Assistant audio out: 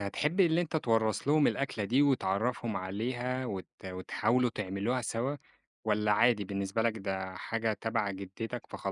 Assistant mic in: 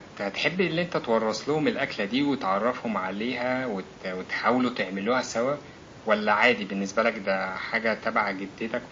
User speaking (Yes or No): No